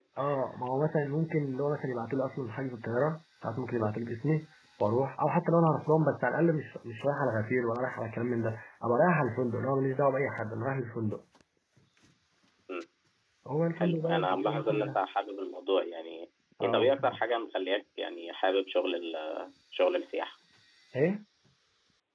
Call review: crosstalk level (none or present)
present